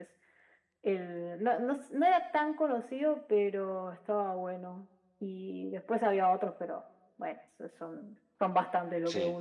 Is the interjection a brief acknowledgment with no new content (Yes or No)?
No